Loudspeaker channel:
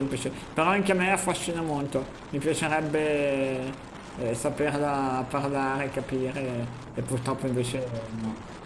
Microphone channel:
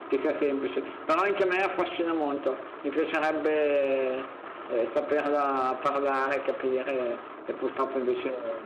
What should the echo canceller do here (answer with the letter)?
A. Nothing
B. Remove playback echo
B